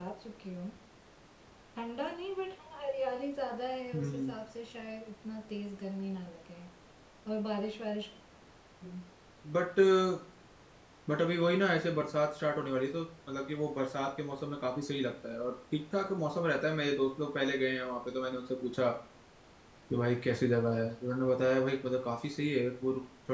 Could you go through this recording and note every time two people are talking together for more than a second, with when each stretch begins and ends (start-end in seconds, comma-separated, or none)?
none